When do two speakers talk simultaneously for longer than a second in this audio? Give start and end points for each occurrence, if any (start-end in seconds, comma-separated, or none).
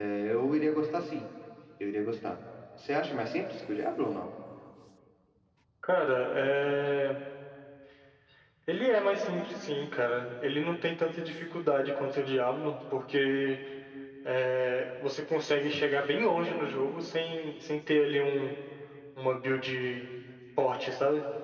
none